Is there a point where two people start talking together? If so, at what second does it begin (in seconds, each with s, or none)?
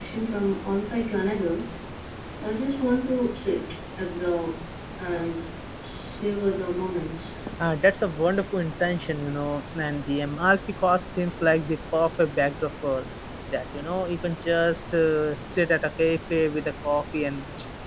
none